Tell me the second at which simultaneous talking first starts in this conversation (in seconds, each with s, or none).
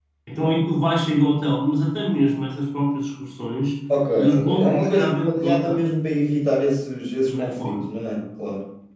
4.2 s